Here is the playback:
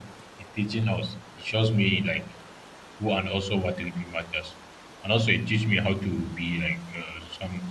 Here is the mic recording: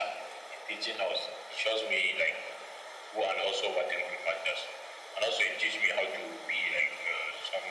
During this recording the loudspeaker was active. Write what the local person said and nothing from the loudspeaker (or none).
none